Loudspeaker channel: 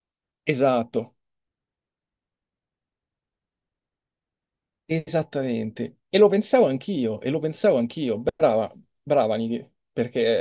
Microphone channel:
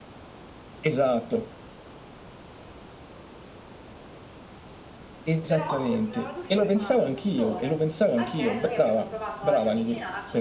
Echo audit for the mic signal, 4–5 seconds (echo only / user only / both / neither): neither